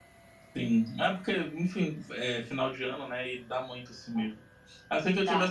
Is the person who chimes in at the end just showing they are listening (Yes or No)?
Yes